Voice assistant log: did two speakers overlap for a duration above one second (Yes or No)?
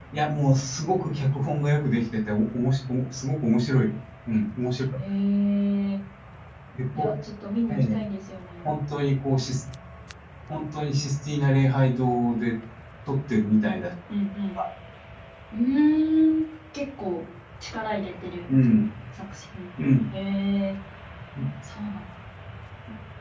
No